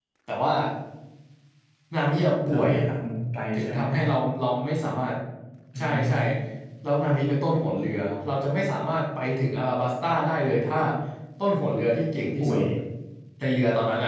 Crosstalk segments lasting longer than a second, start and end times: none

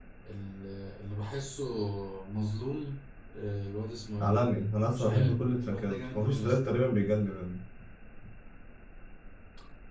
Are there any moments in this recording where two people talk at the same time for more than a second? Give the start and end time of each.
5.0-6.6

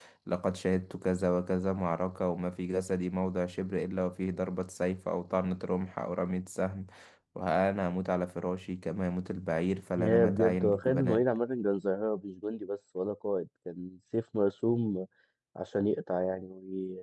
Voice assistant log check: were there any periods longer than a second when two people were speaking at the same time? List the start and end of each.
10.0-11.2

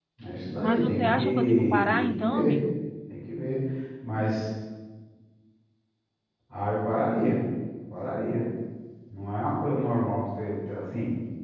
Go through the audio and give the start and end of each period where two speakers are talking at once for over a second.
0.6-2.6

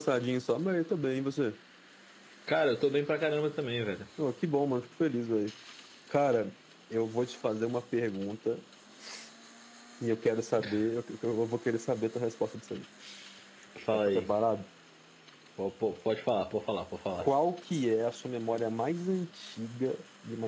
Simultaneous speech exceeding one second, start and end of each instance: none

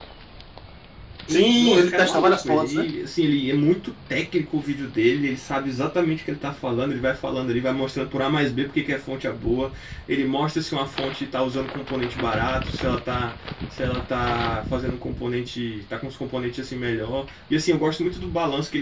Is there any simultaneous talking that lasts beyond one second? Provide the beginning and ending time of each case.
1.3-2.9

